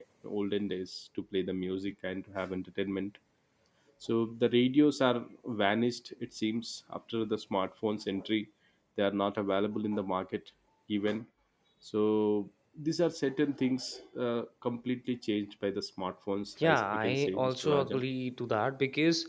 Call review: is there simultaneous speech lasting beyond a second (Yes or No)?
Yes